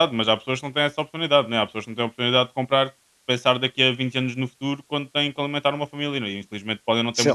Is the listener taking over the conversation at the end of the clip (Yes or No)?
Yes